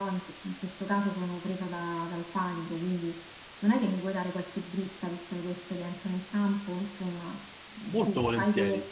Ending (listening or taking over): listening